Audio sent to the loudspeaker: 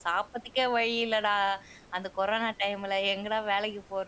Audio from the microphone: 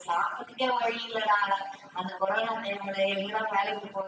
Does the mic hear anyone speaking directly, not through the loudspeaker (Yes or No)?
No